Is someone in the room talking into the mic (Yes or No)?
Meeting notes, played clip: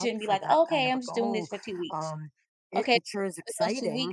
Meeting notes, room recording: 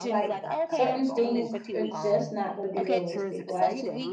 Yes